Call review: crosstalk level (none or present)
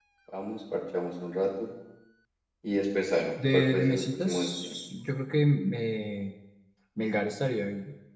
present